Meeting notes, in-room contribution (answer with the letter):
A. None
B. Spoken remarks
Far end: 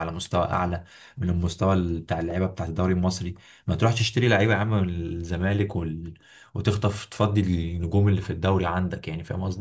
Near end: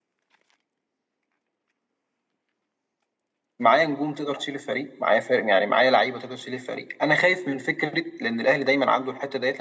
B